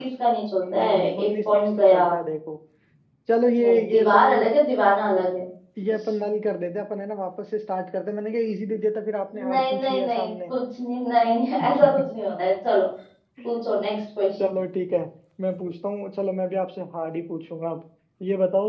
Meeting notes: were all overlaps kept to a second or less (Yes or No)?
No